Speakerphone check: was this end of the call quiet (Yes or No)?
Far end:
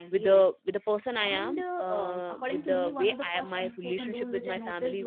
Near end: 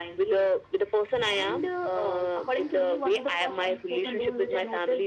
Yes